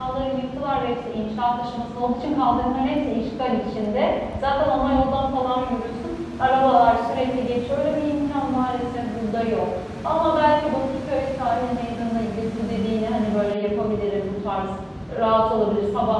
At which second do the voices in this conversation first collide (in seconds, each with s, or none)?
none